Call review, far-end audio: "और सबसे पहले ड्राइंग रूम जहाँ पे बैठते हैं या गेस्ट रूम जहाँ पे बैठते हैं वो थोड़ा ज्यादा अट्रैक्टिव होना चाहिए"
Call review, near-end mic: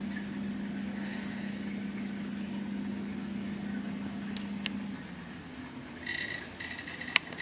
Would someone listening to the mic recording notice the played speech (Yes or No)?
No